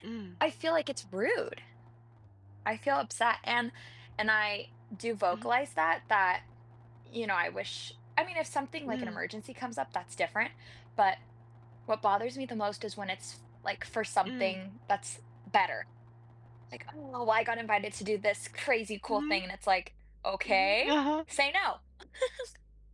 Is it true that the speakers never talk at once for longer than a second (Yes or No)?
Yes